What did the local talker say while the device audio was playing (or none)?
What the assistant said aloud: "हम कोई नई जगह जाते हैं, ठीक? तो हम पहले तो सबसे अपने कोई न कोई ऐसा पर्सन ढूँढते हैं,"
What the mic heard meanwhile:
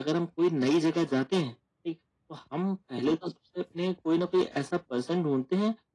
none